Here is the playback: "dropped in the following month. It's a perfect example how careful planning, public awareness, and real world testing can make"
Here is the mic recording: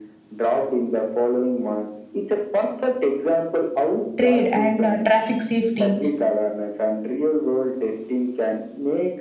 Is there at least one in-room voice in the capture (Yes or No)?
Yes